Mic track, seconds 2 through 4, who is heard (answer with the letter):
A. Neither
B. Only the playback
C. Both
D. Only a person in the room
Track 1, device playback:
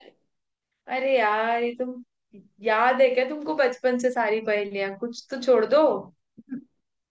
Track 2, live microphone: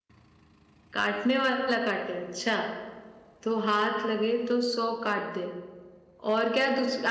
D